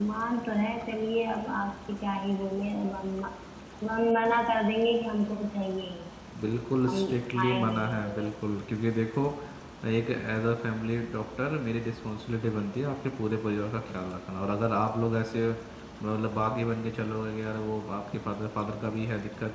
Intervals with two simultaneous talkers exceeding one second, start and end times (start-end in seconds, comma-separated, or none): 6.9-8.3